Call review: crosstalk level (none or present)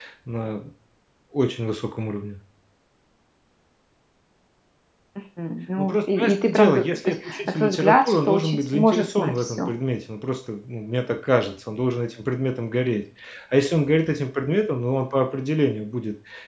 present